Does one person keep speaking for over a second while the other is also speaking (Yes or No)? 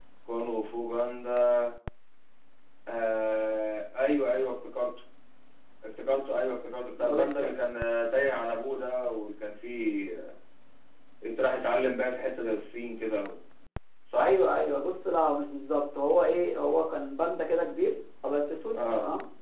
No